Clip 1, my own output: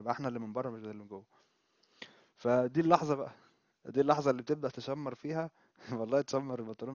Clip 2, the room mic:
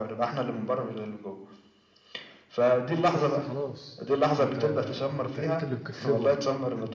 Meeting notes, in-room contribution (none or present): present